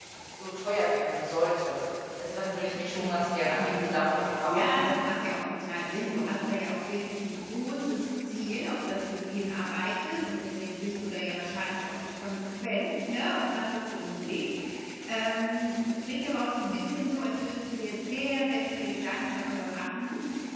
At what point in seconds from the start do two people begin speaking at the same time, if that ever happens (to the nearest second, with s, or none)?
4 s